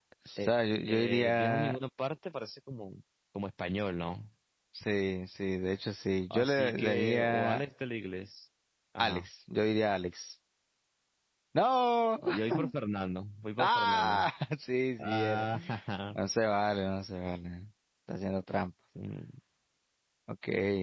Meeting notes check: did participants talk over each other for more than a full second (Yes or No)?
Yes